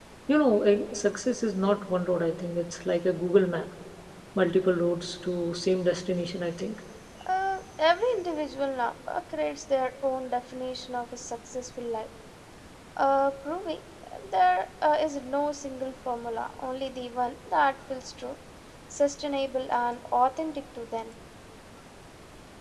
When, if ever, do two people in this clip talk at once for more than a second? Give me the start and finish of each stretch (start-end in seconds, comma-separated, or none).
none